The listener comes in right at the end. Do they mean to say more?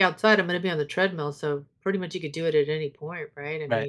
Yes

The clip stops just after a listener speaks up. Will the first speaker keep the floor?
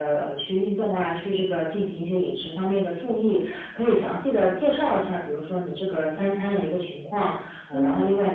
Yes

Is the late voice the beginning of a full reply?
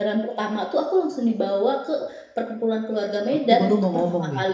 Yes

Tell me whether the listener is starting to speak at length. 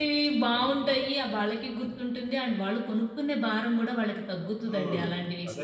Yes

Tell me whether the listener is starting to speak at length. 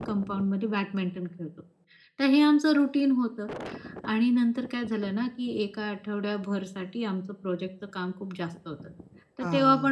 No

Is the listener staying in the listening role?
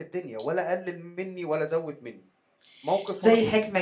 No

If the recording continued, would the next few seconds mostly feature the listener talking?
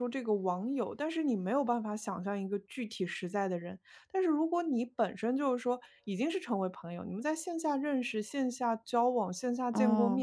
No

